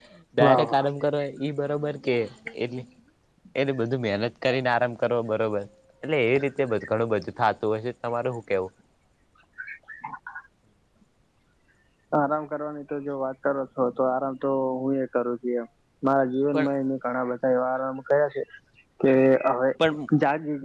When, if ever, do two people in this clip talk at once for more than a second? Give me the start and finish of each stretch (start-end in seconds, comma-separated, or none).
none